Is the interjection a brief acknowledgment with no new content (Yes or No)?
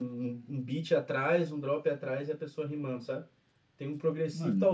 Yes